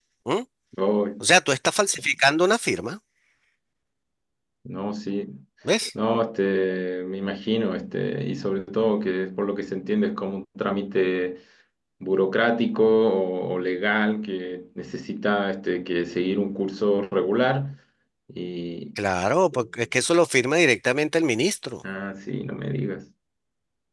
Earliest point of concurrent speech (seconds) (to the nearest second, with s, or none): none